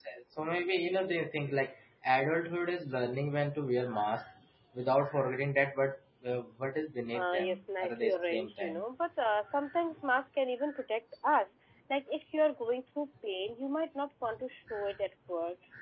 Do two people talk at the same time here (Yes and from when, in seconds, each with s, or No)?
Yes, from 7.1 s